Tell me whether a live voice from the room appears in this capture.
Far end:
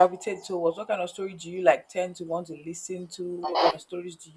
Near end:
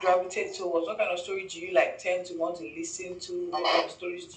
No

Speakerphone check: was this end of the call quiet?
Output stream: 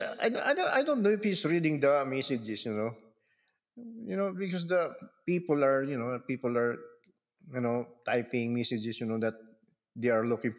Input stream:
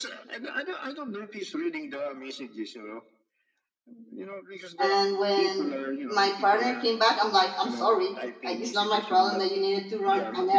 No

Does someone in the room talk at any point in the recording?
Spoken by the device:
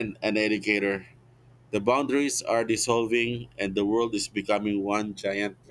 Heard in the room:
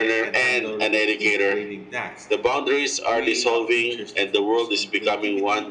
Yes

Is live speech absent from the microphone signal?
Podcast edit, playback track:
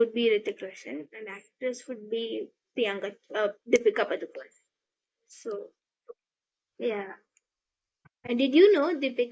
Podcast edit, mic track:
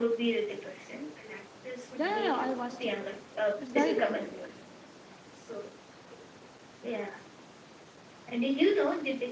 No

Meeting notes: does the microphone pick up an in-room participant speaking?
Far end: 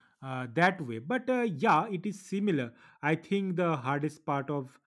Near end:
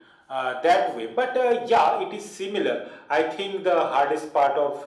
No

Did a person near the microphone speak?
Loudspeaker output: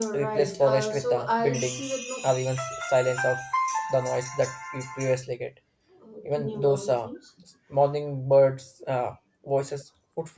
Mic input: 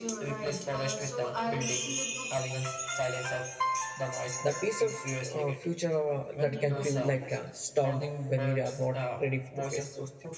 Yes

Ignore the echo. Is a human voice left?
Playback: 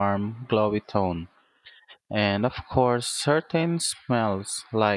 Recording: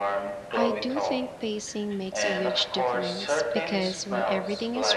Yes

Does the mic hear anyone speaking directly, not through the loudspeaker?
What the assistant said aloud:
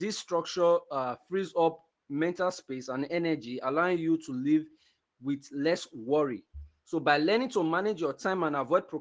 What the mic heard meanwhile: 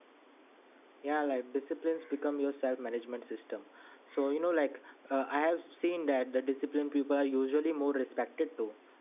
Yes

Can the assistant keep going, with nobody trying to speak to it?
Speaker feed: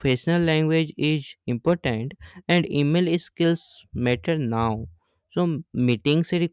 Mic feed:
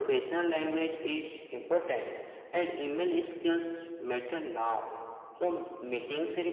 Yes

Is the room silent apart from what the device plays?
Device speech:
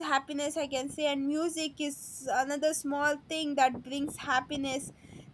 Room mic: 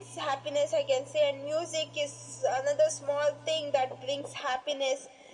Yes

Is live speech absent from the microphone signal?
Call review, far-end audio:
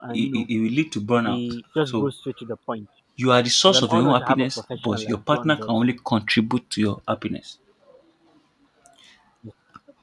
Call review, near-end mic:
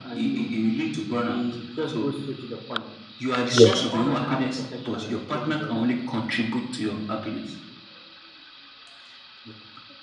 No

